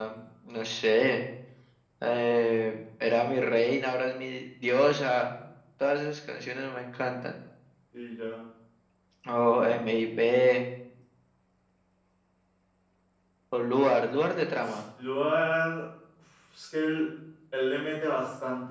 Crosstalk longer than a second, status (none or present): none